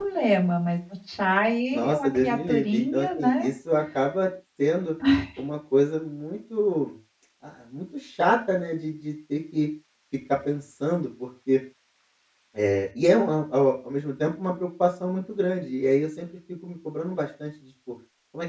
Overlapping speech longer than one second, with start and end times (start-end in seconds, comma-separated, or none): 1.7-3.4